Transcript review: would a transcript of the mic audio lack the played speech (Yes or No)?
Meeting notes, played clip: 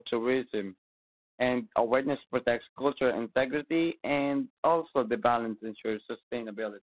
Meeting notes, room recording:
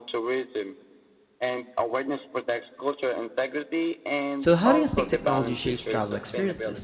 No